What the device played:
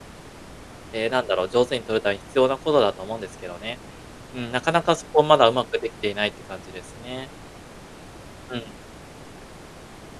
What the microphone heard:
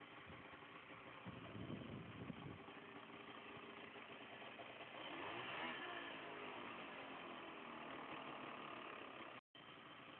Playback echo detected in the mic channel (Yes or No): No